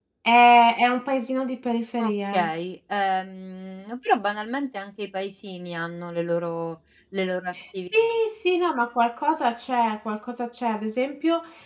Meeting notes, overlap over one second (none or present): none